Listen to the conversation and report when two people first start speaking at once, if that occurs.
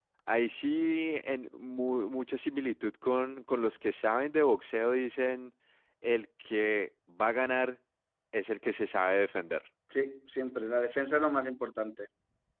none

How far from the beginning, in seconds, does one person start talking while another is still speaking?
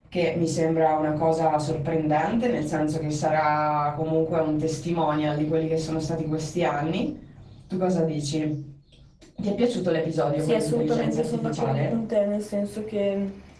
10.3 s

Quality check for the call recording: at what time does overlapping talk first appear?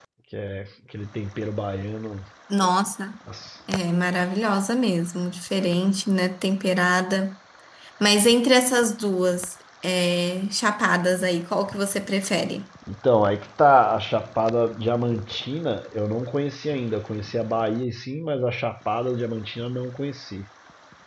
none

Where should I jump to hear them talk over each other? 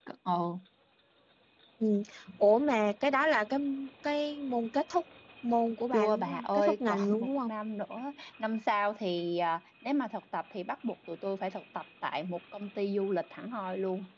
5.9 s

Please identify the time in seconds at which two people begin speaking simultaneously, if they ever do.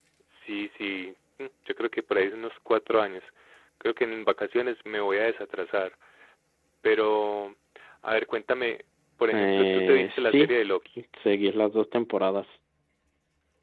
9.3 s

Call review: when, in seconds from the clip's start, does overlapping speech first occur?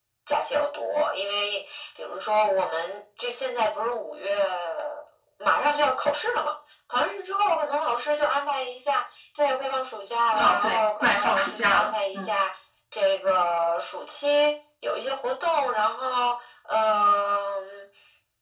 10.3 s

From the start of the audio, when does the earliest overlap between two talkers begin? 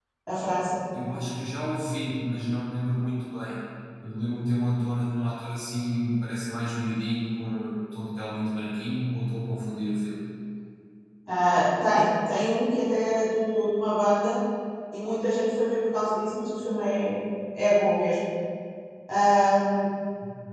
none

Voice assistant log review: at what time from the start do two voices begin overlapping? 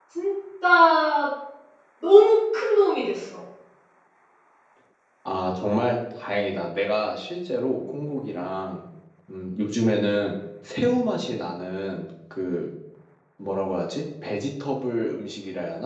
none

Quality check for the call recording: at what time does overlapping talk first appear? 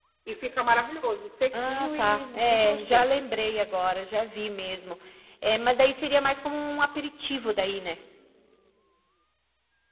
1.5 s

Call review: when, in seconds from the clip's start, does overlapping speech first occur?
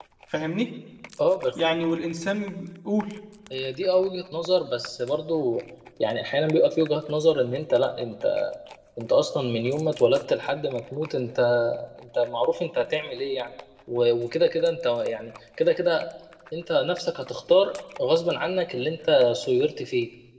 none

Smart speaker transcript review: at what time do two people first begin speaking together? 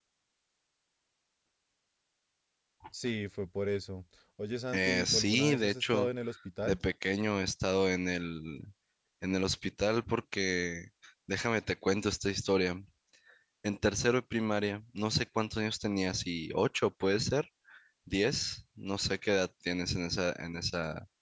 4.7 s

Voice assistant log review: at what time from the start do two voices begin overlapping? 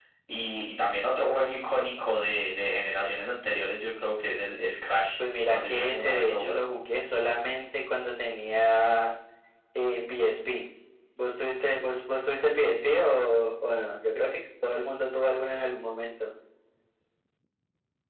5.5 s

